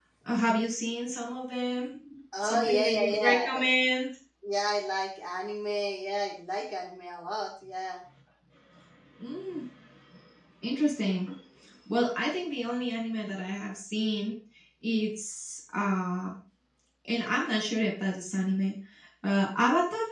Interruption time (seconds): 2.3 s

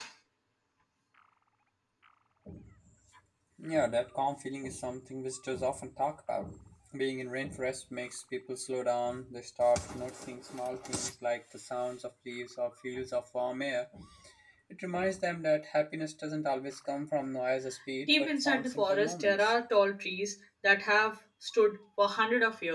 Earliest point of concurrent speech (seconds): 18.1 s

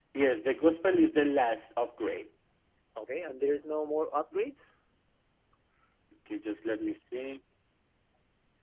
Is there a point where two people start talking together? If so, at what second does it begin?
none

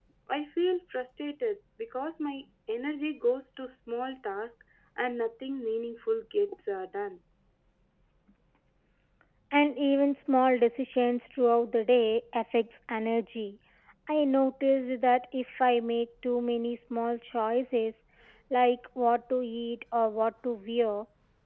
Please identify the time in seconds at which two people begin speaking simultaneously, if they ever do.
none

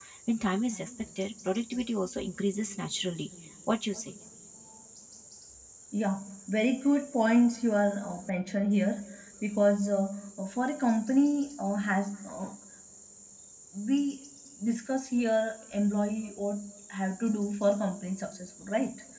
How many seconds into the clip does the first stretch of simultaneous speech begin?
none

